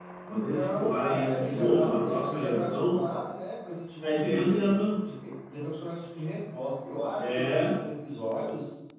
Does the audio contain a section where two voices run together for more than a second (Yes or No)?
Yes